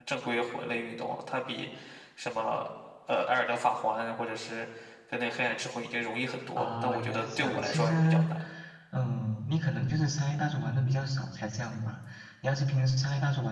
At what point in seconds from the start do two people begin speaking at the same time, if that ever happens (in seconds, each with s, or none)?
6.6 s